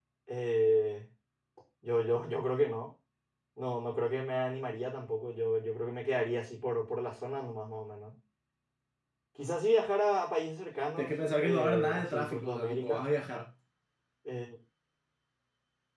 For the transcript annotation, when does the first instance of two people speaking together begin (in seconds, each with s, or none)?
11.0 s